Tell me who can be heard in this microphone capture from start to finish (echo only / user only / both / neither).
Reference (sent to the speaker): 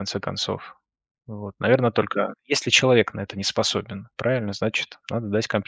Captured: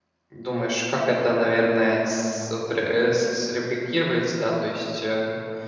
user only